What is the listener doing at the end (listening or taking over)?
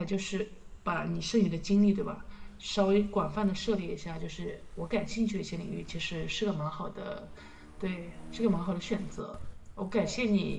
listening